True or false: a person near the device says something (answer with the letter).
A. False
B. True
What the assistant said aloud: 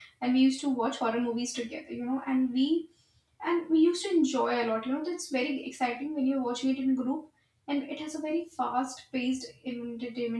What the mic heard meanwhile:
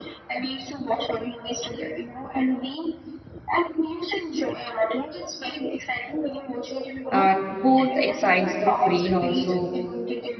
B